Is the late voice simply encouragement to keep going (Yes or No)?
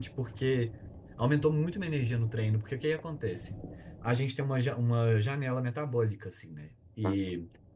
Yes